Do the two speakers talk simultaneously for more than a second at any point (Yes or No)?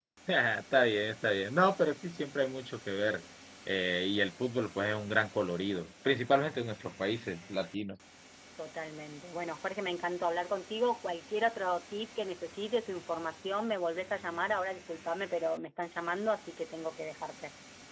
No